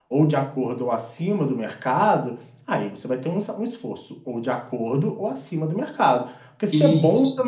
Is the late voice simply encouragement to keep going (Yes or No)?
Yes